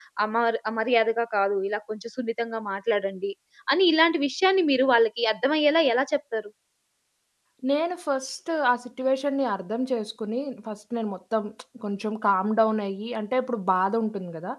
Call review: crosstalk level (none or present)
none